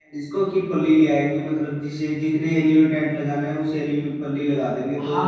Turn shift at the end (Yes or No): Yes